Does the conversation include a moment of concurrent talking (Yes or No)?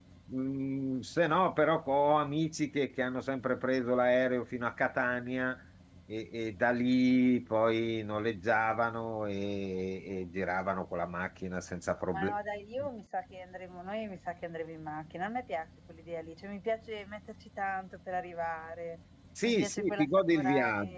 Yes